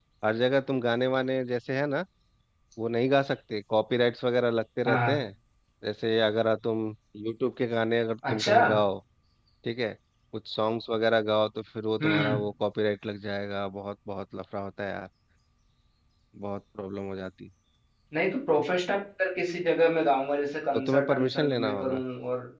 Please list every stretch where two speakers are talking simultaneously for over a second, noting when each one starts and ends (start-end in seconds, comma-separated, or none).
20.7-22.0